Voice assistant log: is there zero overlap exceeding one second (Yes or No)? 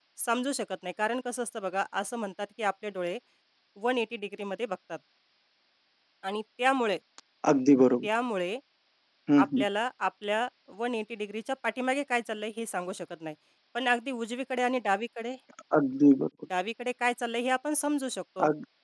Yes